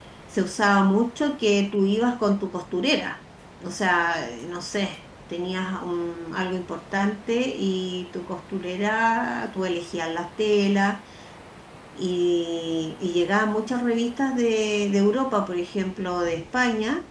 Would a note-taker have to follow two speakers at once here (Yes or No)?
No